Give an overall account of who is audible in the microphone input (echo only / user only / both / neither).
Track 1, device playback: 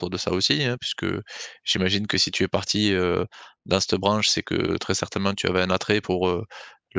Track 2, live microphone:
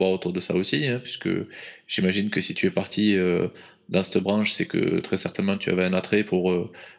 echo only